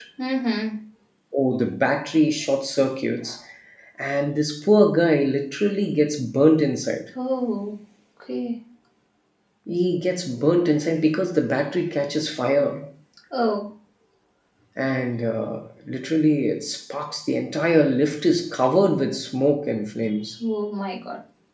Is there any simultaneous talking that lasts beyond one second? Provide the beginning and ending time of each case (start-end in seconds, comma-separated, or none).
none